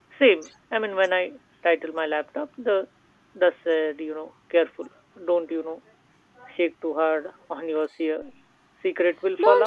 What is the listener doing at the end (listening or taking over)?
taking over